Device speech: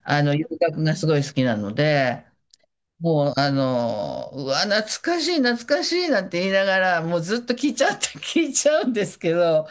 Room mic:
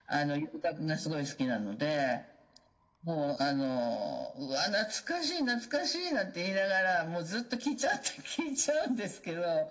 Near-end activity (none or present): none